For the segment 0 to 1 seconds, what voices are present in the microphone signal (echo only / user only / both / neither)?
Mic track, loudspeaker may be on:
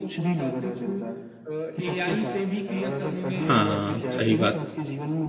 echo only